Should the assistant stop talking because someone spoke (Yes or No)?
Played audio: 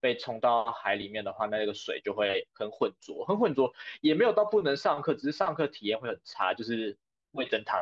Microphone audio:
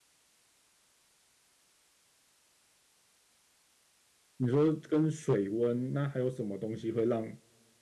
Yes